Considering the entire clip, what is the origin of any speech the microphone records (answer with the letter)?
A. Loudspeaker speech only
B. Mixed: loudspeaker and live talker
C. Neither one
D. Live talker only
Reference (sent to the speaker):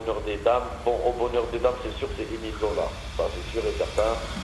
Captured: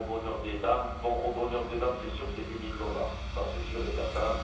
A